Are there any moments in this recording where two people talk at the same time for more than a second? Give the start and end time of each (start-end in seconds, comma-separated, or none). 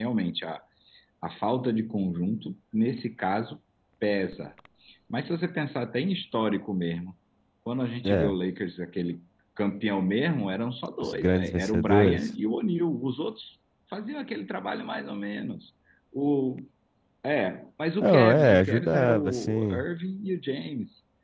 11.0-12.3, 18.0-19.8